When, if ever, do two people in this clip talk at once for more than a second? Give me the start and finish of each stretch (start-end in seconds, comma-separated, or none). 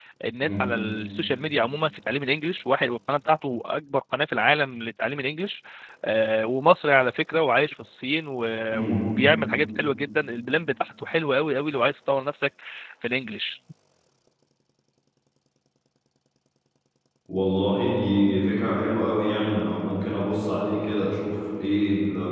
none